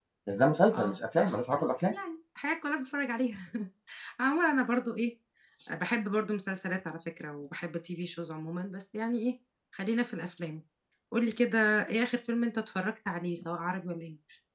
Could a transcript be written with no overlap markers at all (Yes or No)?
No